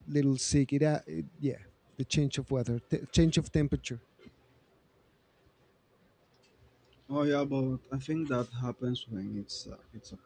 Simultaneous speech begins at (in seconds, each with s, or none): none